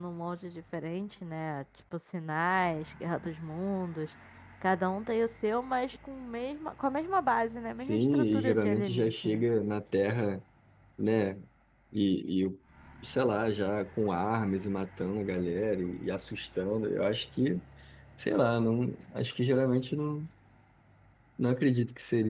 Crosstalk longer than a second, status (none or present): present